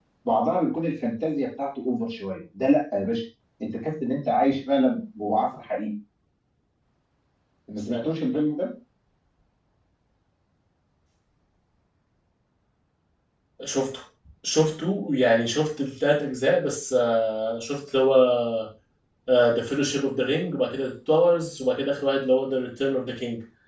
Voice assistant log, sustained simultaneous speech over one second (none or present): none